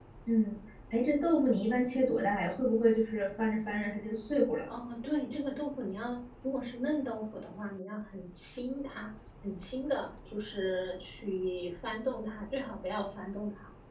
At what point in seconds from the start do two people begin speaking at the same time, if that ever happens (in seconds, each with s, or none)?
none